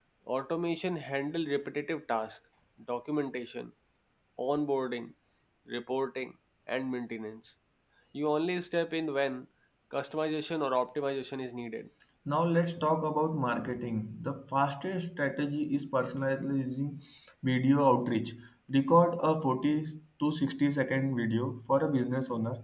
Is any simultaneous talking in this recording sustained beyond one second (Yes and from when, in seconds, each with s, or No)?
No